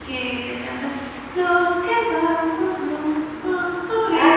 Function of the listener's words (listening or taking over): taking over